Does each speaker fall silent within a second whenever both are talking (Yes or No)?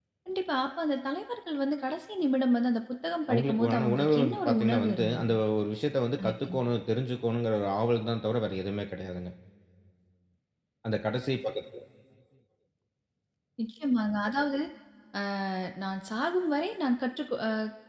No